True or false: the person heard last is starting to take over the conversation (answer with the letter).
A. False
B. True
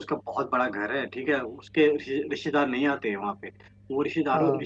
A